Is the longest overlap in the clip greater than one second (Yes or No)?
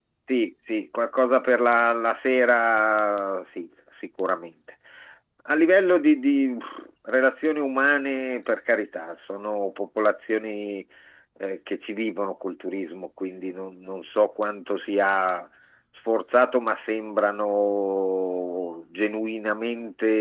No